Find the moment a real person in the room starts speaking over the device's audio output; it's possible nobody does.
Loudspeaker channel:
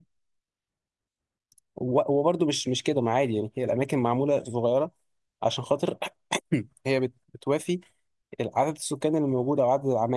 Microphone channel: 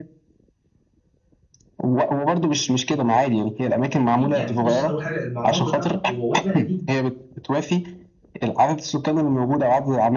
4.1 s

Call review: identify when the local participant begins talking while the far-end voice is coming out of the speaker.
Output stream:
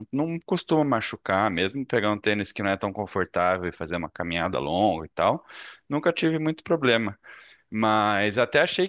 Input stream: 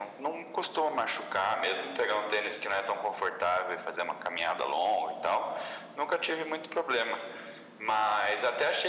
none

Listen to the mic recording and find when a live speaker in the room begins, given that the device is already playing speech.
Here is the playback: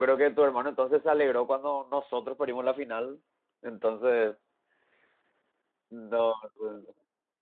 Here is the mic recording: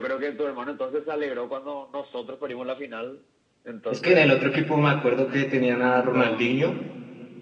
3.9 s

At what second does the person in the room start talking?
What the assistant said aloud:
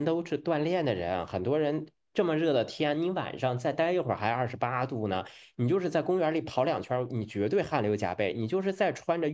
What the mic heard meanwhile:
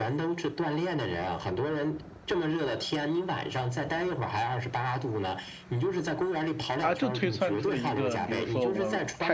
6.8 s

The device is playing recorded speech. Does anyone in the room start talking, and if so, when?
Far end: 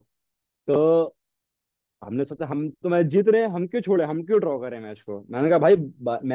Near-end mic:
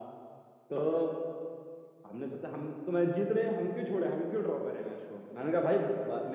none

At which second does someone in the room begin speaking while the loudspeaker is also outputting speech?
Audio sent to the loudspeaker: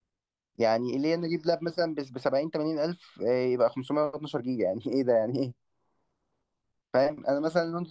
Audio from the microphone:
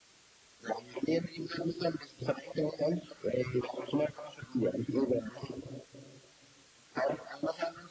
none

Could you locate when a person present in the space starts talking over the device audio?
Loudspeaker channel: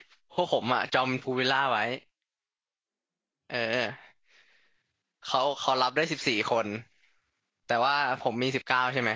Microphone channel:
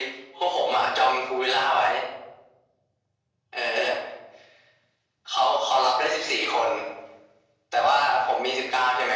none

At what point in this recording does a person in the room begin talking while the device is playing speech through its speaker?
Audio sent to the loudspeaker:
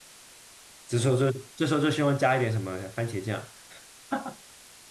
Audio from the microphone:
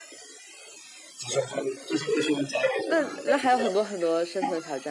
2.8 s

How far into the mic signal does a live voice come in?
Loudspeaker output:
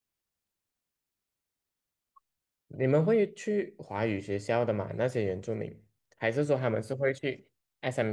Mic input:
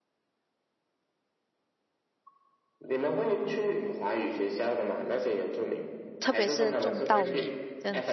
6.2 s

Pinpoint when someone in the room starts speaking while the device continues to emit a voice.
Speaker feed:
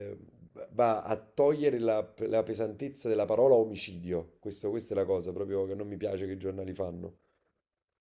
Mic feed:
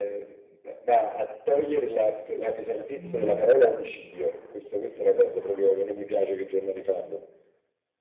2.9 s

